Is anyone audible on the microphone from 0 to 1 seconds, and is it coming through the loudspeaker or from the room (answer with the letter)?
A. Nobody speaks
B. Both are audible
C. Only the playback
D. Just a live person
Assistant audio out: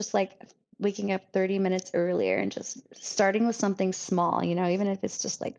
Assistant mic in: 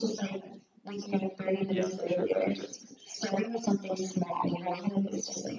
C